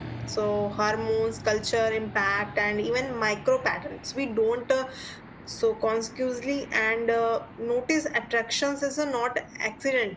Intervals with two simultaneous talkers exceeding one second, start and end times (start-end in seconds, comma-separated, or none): none